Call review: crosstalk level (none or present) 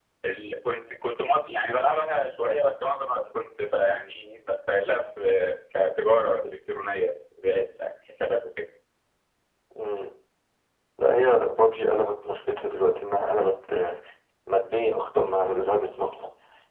none